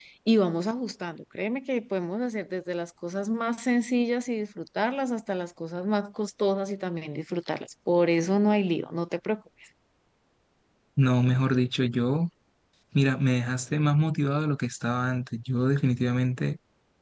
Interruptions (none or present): none